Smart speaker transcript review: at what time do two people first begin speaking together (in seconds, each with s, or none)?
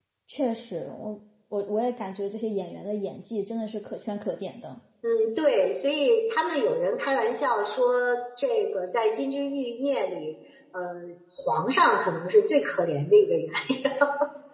none